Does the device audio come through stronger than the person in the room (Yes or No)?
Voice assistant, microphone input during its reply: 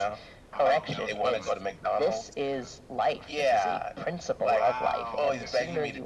Yes